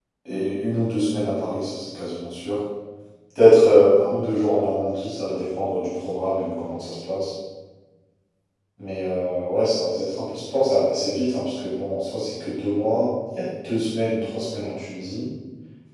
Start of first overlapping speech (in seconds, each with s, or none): none